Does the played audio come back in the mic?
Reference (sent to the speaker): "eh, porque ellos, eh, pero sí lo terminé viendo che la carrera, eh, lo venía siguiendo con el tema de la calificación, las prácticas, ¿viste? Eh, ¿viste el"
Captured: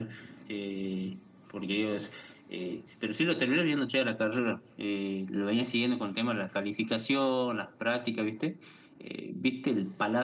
Yes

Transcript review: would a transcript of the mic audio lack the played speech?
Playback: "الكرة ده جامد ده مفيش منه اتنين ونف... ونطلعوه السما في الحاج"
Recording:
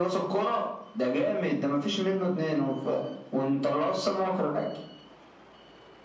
No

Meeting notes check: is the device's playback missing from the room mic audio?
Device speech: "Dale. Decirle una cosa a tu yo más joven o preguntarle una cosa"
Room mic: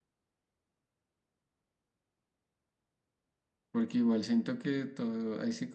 Yes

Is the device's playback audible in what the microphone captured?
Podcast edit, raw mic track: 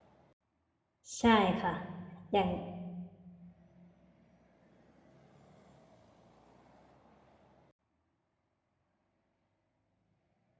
No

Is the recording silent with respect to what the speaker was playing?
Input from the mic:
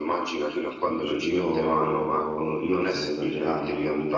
No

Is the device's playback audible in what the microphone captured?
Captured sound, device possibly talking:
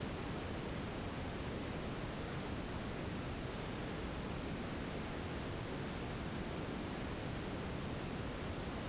No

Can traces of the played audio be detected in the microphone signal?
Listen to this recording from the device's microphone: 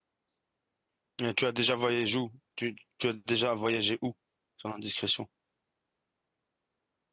No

